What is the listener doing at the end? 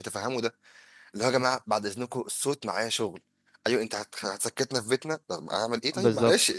taking over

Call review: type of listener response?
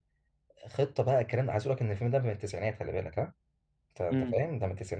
listening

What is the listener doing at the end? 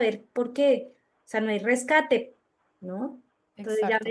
listening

